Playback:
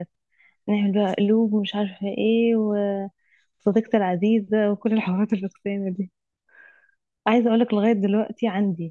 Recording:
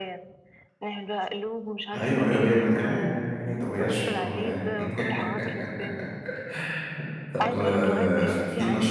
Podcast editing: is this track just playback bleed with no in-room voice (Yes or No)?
No